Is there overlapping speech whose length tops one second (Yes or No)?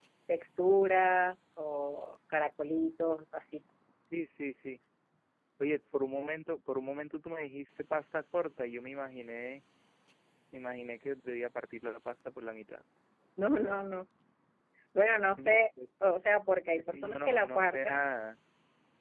Yes